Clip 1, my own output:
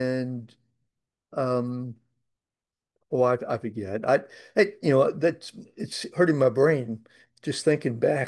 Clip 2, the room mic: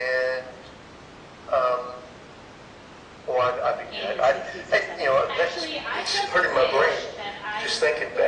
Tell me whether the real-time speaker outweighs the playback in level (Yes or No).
No